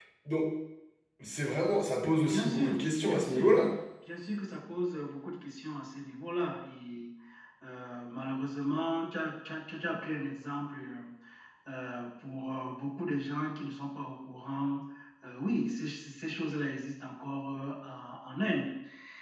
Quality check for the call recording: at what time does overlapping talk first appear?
2 s

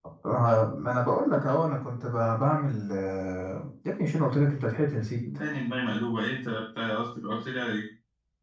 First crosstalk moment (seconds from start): none

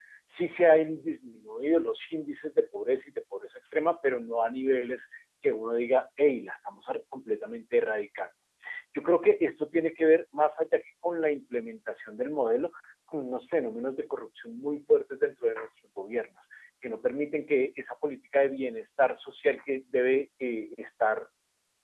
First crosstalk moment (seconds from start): none

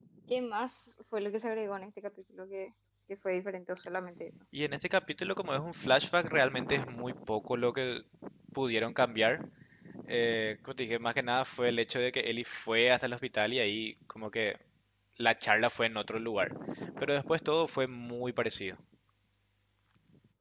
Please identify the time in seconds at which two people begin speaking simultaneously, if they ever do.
none

